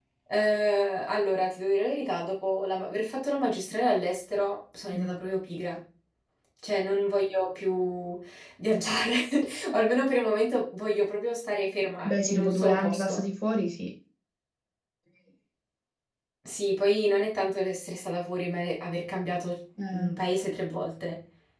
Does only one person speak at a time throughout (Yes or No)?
No